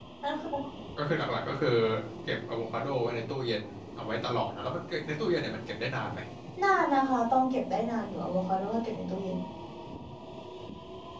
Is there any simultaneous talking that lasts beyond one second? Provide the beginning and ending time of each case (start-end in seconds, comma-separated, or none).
none